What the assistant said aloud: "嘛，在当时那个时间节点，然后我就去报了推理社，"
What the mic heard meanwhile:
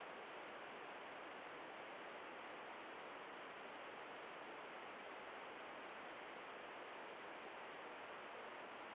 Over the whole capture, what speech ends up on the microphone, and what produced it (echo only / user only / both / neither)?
neither